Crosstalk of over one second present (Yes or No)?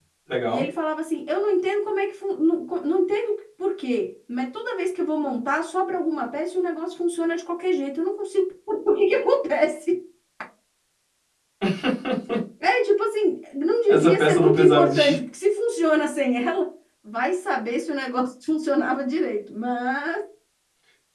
Yes